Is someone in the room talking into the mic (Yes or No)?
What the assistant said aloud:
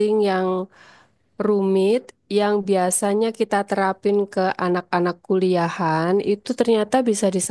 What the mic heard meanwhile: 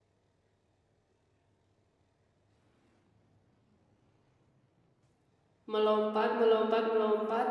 Yes